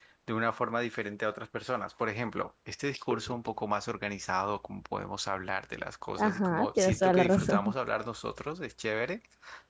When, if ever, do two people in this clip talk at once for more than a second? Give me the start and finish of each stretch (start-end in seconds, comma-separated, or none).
6.2-7.7